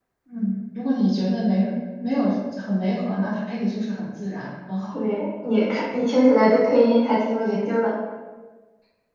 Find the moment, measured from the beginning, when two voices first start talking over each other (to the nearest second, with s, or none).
none